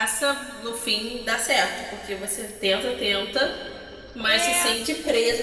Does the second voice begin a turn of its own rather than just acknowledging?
No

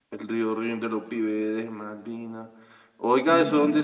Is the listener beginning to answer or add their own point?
No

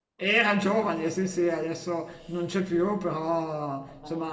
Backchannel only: Yes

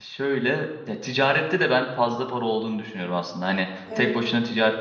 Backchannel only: Yes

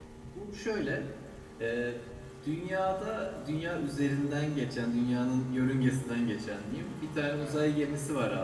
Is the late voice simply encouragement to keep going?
Yes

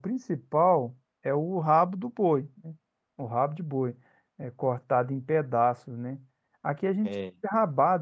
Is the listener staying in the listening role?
Yes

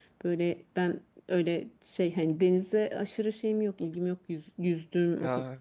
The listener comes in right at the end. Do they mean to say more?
No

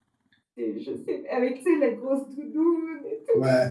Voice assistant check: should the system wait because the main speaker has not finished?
No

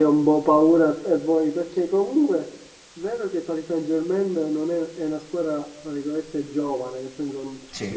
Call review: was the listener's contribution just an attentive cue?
Yes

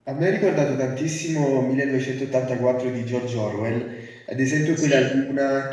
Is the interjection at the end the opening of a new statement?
No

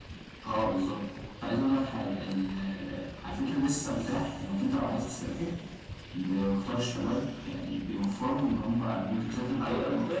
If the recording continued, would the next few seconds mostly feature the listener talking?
Yes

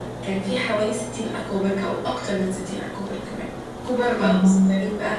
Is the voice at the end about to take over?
No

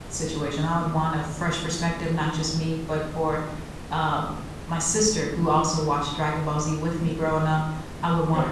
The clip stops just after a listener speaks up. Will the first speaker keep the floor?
Yes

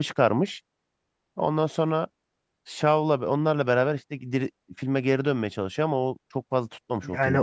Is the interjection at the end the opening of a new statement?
Yes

